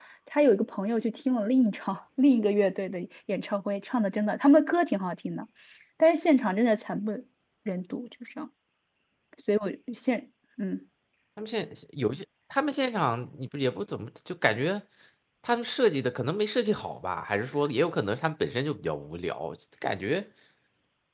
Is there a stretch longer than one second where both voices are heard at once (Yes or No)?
No